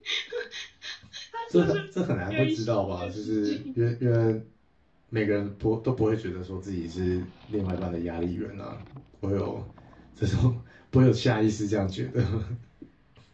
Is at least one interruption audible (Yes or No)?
Yes